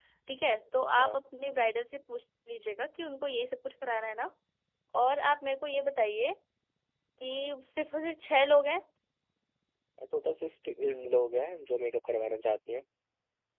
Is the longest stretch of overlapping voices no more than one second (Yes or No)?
Yes